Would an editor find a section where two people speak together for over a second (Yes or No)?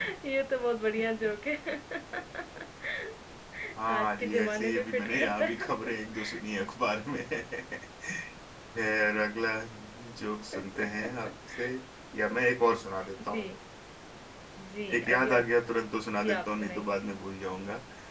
Yes